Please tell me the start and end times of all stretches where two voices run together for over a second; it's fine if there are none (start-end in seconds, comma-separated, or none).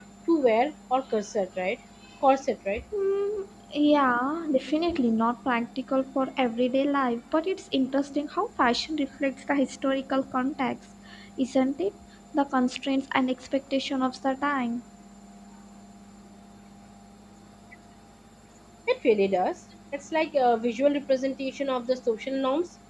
none